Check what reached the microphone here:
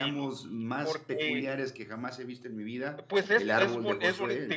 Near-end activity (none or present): present